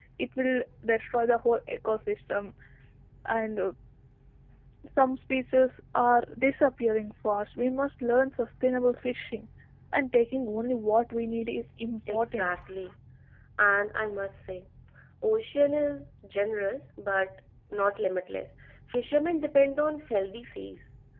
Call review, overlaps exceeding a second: none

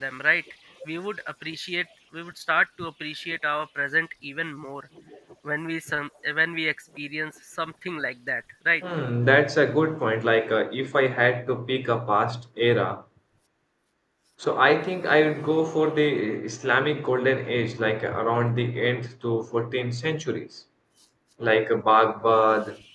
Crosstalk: none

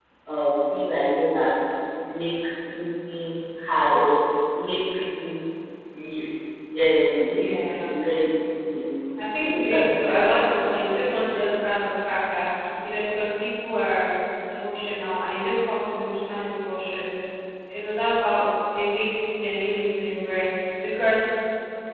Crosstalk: present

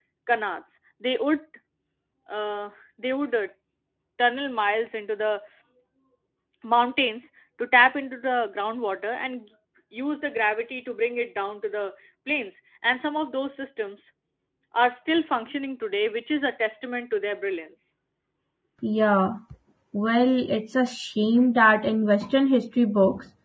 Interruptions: none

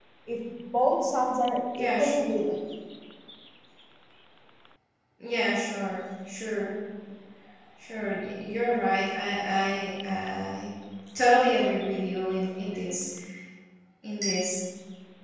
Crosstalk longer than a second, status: none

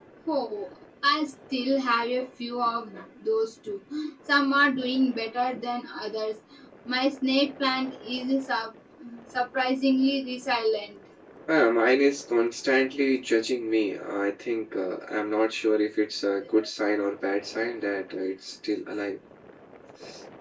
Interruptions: none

